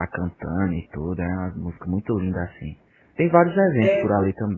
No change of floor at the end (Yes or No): Yes